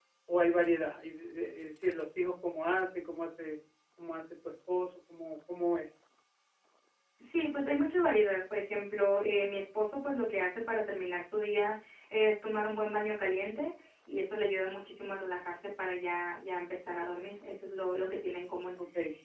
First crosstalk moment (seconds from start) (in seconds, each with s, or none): none